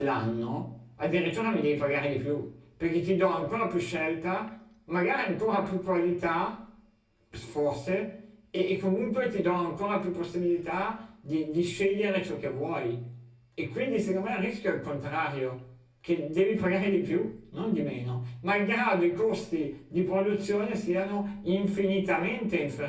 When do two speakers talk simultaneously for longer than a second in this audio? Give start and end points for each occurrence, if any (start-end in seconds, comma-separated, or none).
none